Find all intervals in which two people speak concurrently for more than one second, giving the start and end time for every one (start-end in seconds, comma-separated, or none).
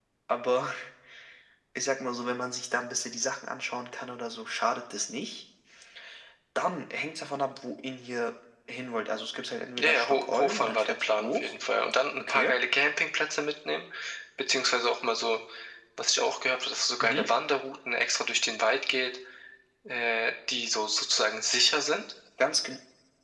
9.8-11.5